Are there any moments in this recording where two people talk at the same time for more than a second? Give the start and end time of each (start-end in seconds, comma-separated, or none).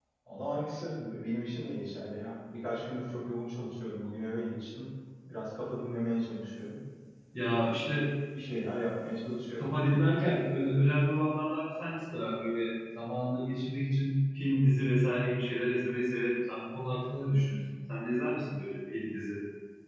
none